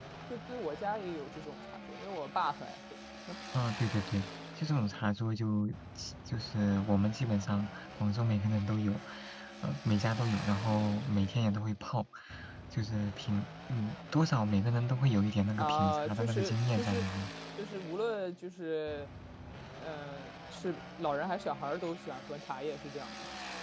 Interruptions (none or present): present